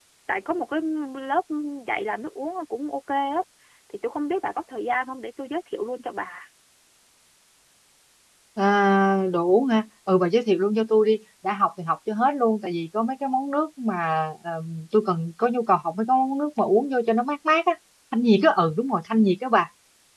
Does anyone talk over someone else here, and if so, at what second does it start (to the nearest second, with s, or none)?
none